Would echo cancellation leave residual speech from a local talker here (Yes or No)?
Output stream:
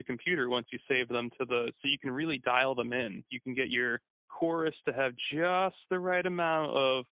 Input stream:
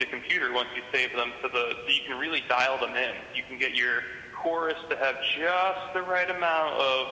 No